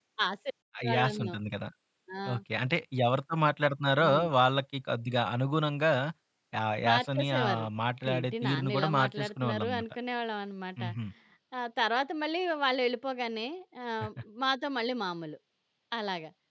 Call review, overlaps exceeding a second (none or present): present